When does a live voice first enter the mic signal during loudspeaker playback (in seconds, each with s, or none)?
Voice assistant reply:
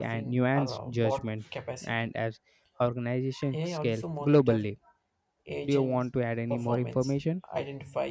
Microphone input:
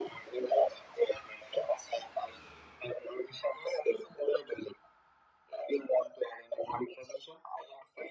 none